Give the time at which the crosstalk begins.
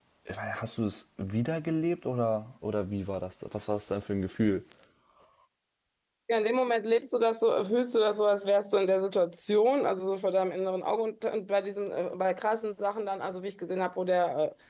none

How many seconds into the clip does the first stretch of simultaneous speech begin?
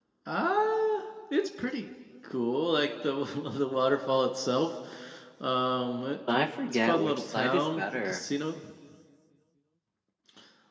6.9 s

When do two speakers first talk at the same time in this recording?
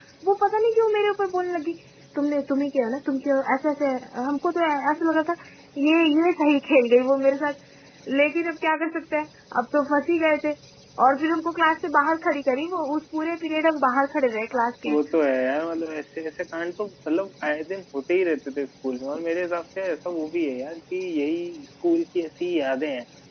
none

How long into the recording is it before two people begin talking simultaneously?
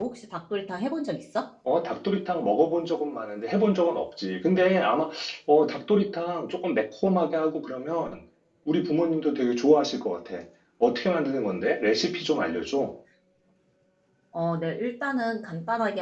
none

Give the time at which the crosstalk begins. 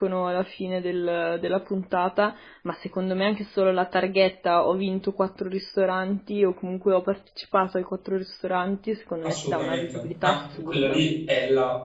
9.2 s

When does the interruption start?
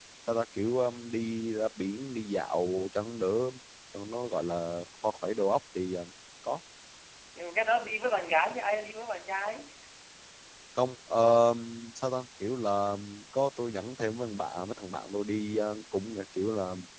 none

